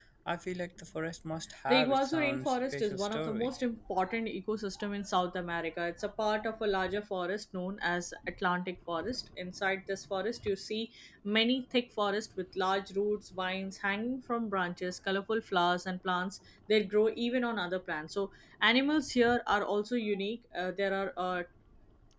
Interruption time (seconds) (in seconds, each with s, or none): 1.7 s